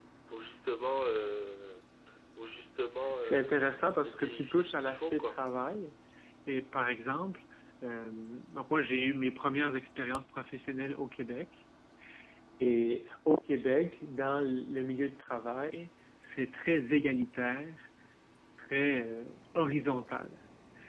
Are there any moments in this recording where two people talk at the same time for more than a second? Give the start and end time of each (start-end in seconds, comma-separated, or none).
4.0-5.4